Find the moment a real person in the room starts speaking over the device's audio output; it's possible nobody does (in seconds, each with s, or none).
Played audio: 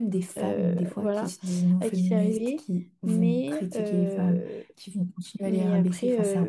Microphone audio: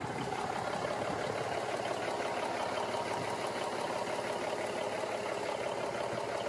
none